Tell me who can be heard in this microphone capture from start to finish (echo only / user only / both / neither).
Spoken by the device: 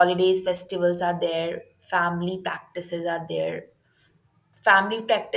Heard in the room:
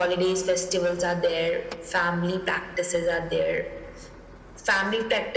echo only